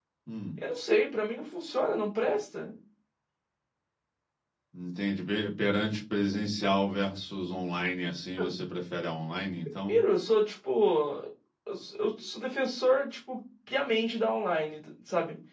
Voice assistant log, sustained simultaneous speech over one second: none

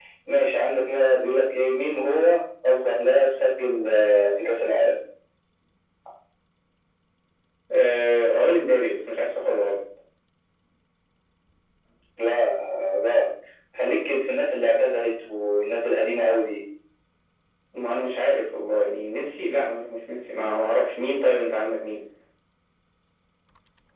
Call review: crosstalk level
none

